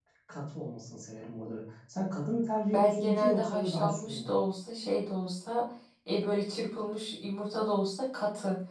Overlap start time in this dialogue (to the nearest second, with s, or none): 3 s